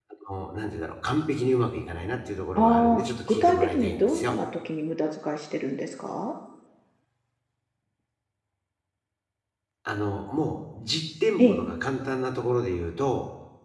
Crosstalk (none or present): present